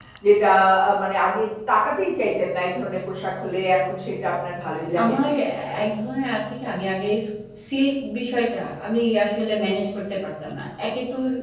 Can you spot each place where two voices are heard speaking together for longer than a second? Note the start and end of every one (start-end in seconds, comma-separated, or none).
none